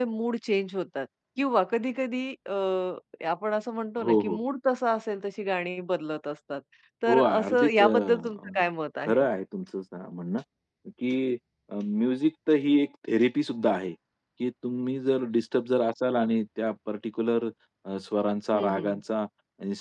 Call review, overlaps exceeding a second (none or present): present